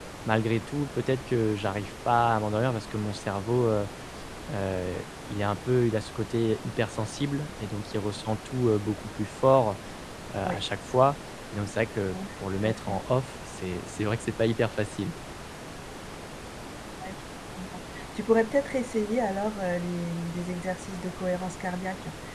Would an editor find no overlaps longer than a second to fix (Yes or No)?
Yes